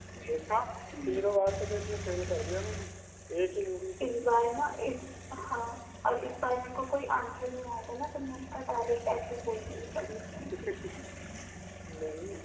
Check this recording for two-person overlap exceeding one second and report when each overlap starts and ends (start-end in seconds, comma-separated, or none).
none